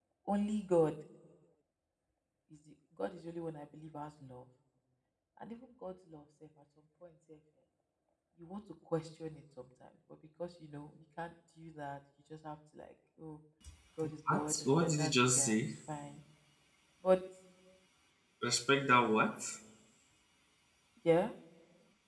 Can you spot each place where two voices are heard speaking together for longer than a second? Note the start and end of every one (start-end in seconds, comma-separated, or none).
14.3-15.8